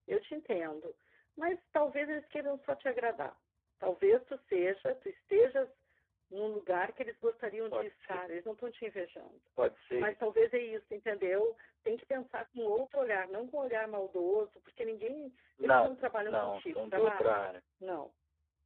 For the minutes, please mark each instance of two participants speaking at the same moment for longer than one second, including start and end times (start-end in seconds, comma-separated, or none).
15.6-17.4